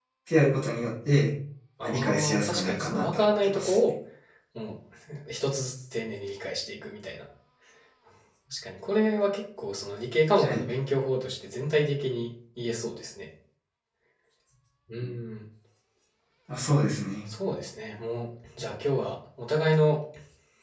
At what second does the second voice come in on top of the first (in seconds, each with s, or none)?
1.8 s